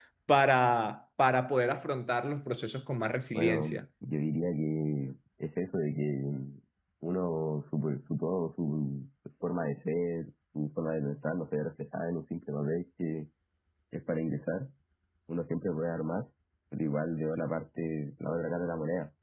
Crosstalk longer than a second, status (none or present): none